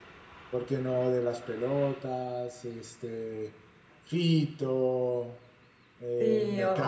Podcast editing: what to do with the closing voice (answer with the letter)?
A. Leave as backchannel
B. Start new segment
B